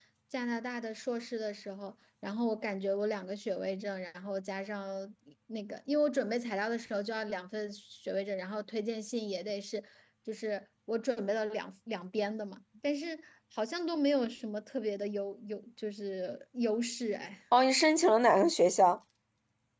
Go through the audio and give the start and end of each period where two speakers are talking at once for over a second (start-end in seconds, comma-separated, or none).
none